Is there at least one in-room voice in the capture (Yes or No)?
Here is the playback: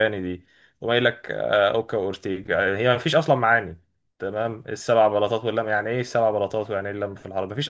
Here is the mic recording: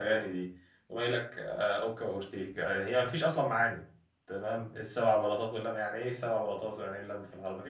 No